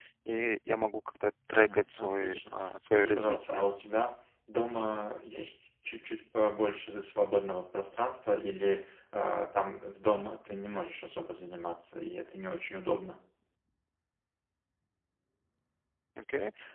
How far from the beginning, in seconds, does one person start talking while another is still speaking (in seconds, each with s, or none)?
1.5 s